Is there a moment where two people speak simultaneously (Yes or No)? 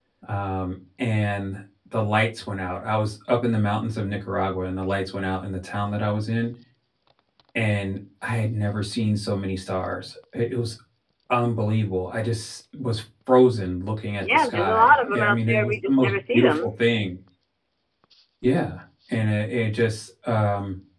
Yes